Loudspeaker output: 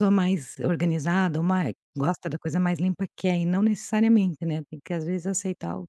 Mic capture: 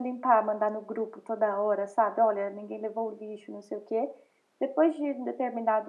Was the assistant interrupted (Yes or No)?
Yes